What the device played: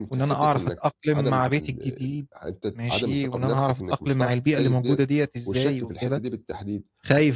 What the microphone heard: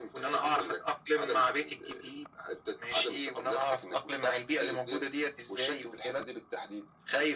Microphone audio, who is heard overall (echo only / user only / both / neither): echo only